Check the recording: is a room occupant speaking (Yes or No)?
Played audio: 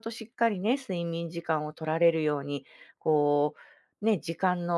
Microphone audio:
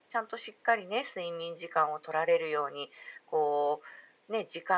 No